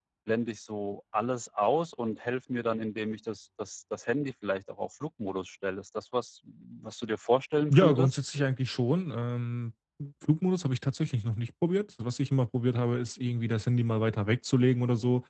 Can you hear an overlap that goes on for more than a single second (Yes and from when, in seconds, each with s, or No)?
No